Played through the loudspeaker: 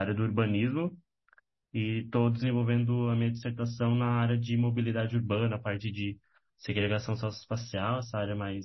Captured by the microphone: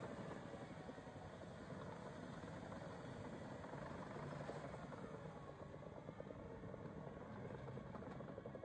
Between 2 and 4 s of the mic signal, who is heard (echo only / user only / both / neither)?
neither